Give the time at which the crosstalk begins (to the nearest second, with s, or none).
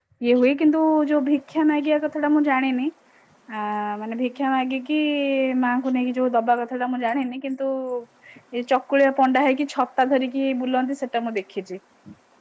none